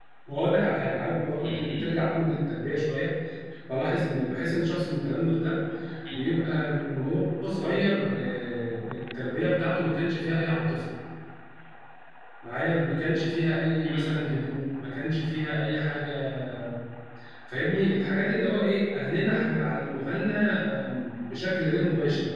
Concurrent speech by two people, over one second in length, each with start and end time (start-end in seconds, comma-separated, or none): none